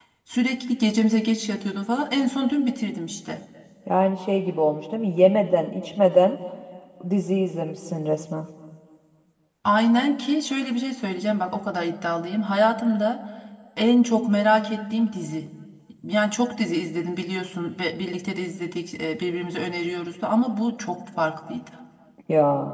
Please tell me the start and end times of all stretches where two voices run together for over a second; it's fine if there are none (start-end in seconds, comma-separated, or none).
none